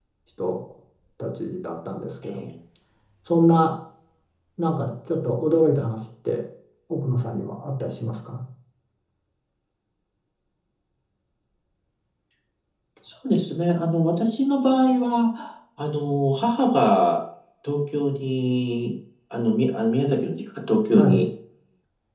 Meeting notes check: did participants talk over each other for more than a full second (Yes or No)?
No